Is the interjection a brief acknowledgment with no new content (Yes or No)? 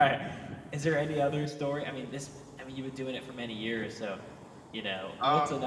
Yes